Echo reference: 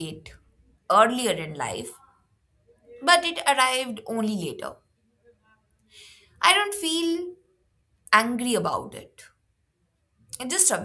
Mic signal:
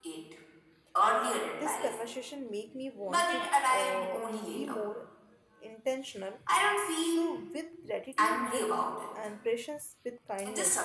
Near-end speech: present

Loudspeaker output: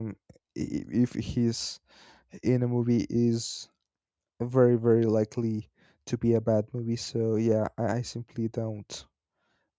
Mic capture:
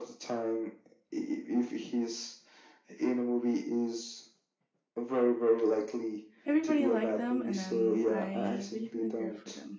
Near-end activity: present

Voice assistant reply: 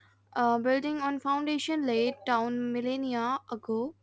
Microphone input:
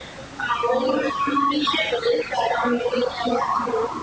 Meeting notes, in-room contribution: none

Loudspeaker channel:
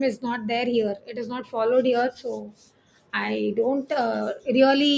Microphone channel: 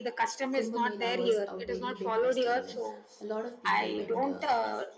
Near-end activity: present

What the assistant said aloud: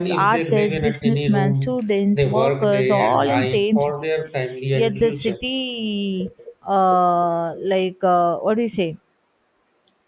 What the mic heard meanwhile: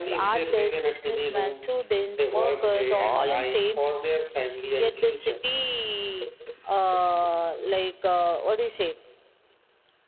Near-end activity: none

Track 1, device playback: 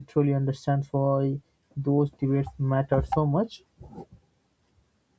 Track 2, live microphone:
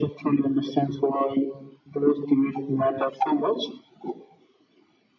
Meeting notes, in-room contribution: none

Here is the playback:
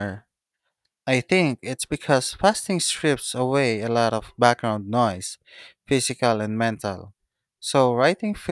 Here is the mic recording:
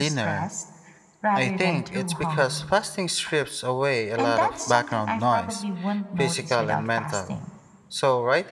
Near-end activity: present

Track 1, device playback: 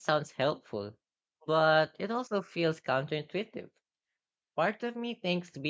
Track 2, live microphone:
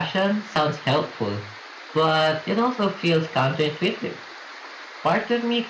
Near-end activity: none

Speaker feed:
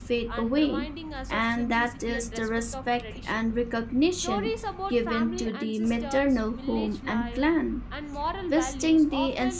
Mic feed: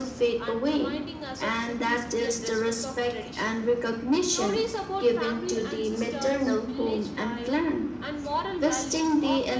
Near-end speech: none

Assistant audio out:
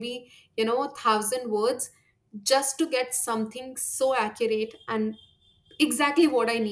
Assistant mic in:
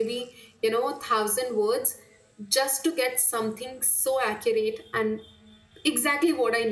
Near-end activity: none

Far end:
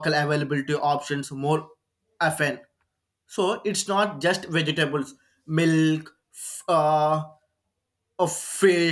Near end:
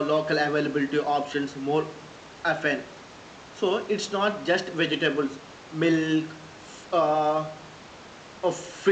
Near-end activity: none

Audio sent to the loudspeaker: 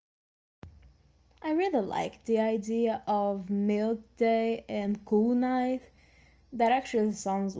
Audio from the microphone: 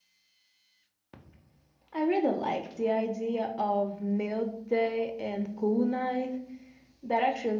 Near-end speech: none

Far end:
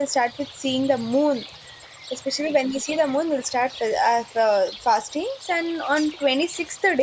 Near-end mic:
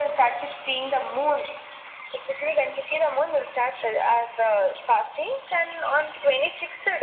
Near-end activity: none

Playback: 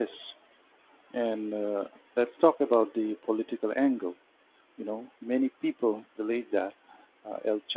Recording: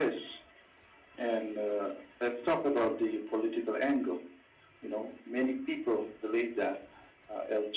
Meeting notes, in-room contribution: none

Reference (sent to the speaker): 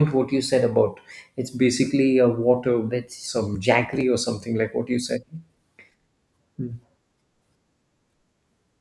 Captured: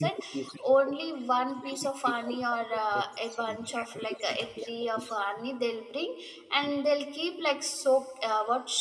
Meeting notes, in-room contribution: present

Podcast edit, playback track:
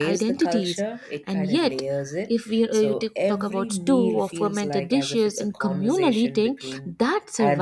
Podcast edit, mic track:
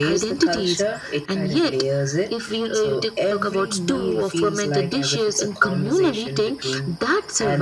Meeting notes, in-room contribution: none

